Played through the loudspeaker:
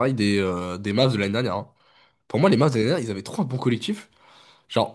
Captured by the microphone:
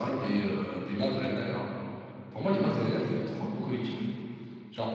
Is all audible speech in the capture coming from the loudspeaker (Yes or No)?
Yes